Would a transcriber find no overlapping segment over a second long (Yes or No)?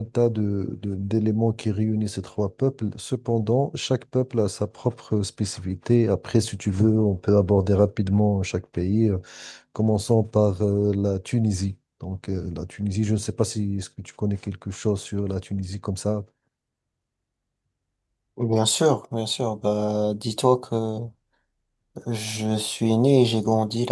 Yes